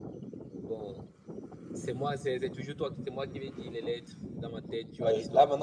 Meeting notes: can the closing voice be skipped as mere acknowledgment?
No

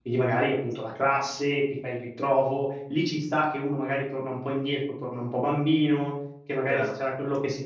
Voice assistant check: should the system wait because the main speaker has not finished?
Yes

